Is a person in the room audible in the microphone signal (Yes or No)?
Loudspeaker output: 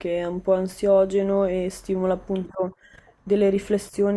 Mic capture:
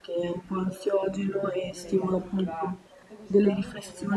Yes